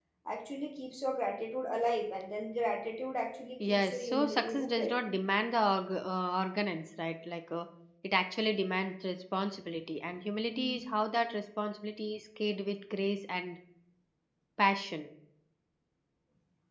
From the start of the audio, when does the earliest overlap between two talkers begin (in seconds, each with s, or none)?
3.7 s